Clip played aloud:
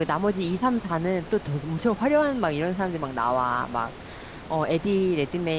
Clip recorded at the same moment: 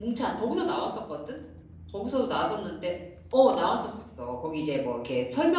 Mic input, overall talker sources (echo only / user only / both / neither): user only